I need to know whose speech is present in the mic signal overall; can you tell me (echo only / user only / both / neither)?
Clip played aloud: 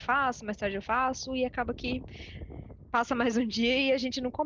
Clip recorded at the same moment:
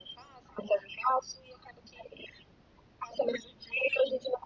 echo only